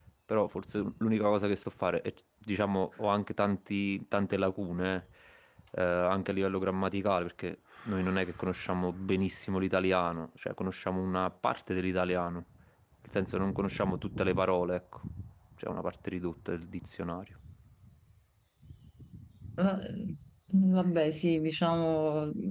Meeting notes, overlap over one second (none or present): none